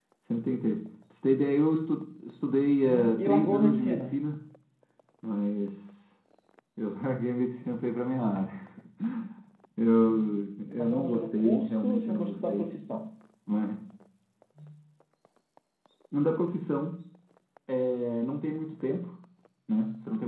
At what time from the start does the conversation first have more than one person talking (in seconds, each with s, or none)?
2.8 s